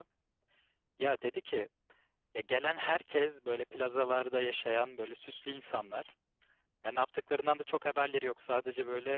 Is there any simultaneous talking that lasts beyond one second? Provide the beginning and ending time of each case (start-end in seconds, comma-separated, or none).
none